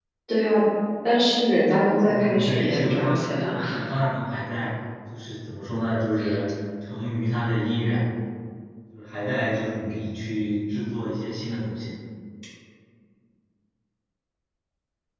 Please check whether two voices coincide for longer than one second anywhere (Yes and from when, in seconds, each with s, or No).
Yes, from 2.0 s